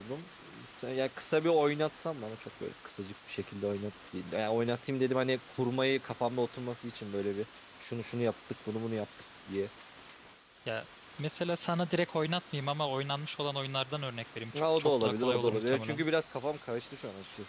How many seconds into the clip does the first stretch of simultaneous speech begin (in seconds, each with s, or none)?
14.5 s